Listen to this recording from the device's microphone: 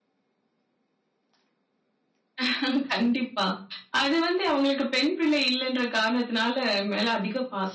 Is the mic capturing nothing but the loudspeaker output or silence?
Yes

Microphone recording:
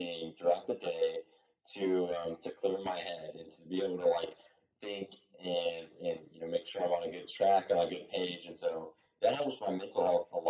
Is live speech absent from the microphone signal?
Yes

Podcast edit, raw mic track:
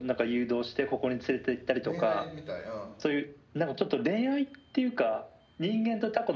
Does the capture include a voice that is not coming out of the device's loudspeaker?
Yes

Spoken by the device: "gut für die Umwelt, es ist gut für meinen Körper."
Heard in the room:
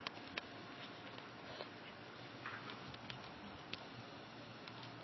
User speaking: No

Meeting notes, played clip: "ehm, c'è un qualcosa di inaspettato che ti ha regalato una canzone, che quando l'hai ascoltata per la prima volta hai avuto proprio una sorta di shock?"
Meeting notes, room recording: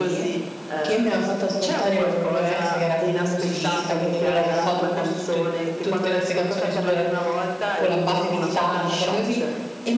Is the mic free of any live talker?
No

